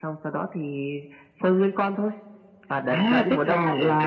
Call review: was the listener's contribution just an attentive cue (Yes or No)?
No